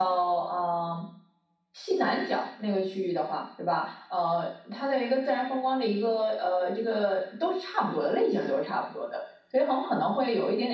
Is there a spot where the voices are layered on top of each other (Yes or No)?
No